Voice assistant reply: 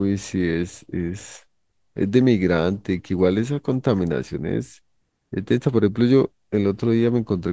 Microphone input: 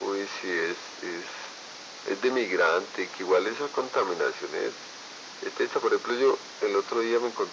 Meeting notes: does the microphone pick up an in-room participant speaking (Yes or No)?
No